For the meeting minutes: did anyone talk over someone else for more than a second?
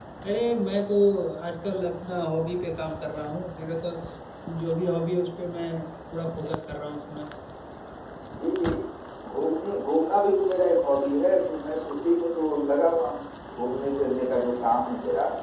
No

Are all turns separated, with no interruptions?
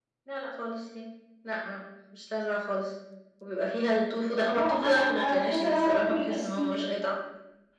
No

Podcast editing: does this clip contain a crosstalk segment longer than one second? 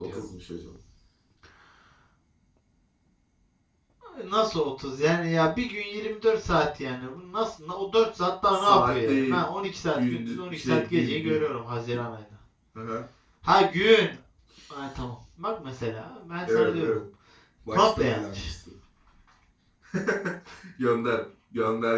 Yes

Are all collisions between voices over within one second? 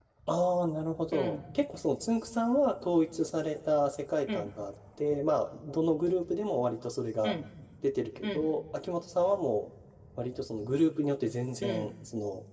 Yes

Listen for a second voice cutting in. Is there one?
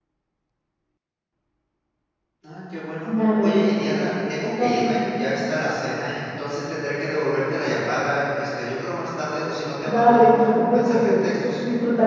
Yes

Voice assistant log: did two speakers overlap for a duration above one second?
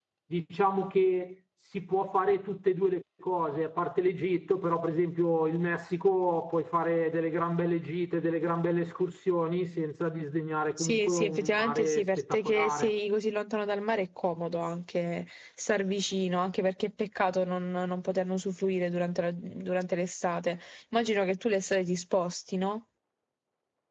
Yes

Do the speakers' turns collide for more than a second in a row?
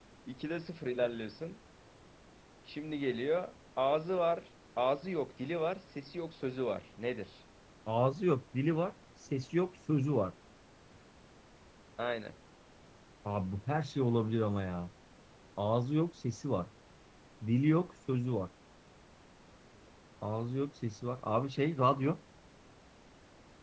No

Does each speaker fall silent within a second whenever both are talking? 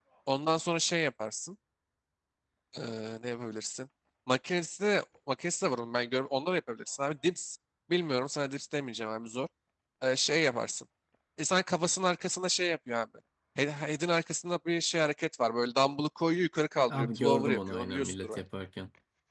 No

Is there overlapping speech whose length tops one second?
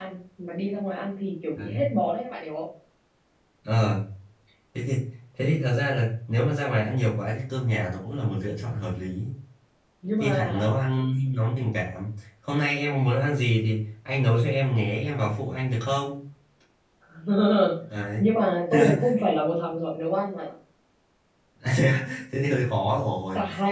No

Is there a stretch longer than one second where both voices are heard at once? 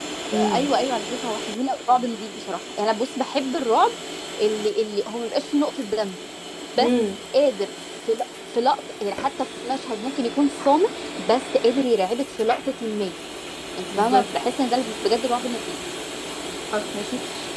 No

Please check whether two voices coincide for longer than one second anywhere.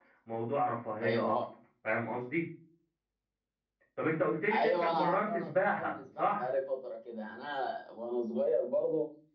Yes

